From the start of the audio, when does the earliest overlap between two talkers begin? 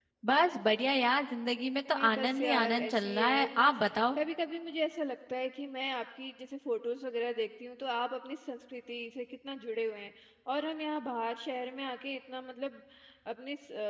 1.9 s

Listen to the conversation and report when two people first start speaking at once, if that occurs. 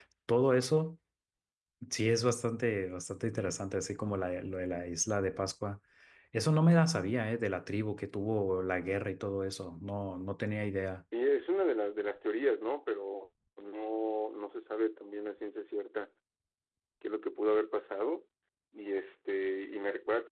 none

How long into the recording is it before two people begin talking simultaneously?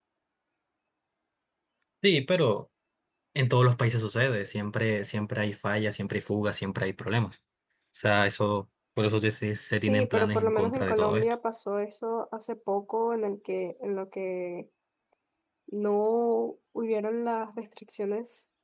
9.9 s

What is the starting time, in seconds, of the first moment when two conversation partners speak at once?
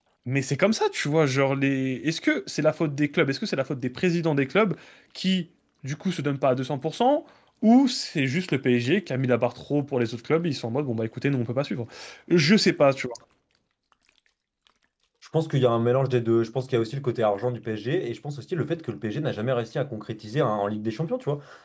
none

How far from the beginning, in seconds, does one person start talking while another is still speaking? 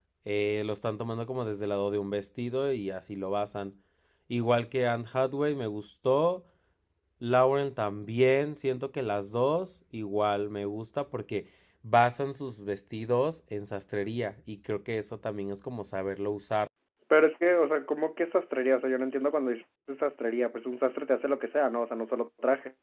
none

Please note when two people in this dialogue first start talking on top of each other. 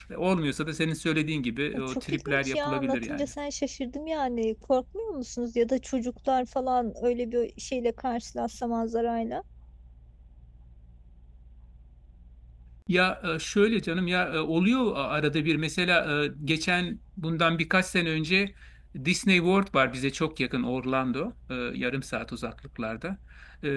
1.7 s

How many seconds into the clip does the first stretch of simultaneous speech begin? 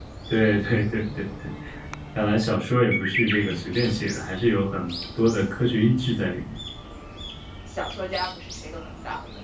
none

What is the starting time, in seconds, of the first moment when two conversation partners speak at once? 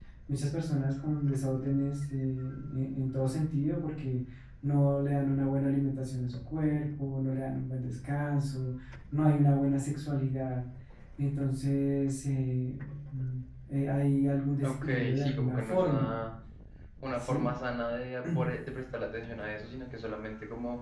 14.6 s

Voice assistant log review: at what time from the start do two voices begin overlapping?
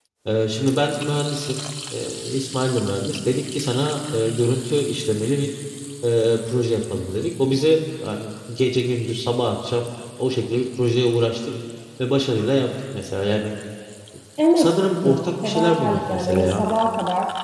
14.6 s

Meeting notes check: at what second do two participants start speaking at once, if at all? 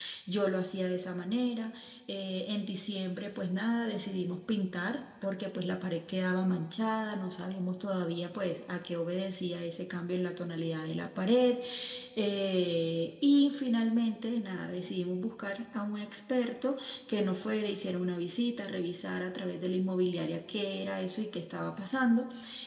none

